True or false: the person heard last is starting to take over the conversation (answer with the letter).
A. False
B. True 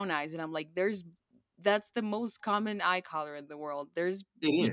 A